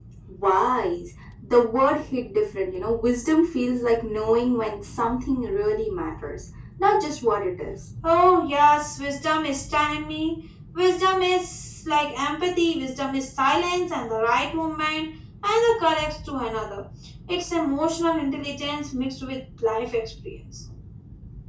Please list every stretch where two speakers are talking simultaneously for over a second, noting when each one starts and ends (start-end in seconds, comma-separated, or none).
none